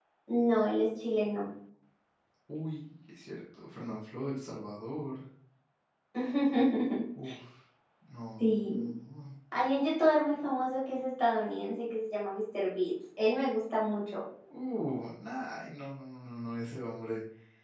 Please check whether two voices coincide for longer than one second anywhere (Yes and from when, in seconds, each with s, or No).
No